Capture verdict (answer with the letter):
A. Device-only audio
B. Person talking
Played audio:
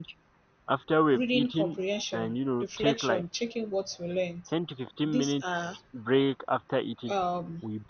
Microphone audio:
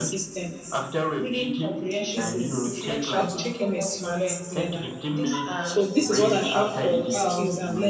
B